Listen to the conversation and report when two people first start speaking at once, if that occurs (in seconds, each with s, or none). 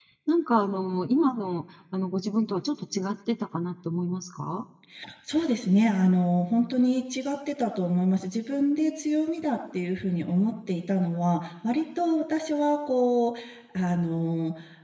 none